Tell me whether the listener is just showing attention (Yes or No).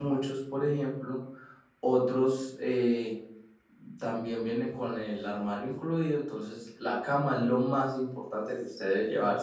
No